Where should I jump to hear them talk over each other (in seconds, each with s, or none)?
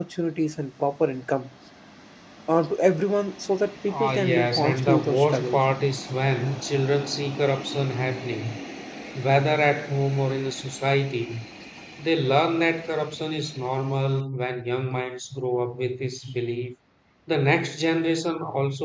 3.9 s